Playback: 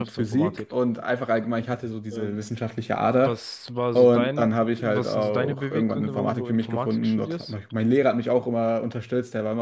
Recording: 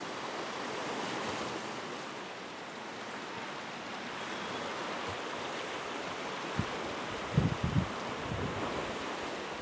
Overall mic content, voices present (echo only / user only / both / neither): neither